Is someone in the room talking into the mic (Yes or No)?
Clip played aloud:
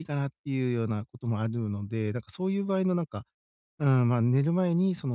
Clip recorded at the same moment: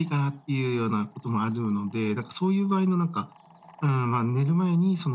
No